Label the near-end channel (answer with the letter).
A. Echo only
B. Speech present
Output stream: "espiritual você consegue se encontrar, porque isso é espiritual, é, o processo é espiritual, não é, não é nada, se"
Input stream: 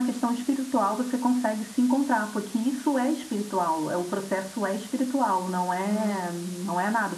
B